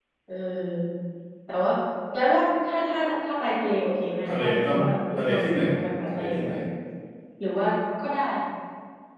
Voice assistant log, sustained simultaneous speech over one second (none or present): present